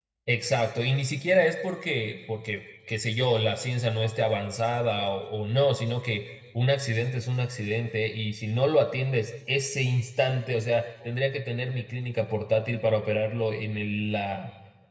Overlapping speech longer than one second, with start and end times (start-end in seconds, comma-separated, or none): none